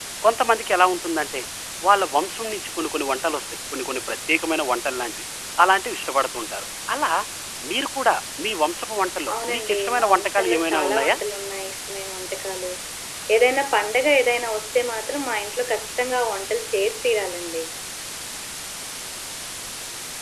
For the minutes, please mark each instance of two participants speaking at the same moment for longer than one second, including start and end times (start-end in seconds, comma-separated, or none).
9.3-11.2